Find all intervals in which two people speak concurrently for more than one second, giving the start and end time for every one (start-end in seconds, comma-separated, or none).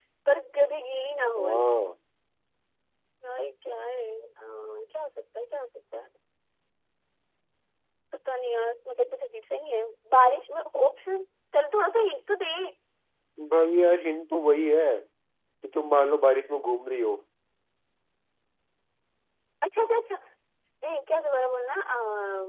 none